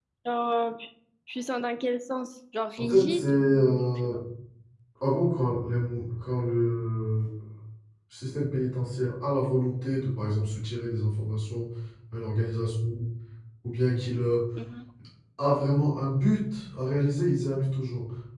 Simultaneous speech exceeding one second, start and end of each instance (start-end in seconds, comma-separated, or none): 2.8-4.2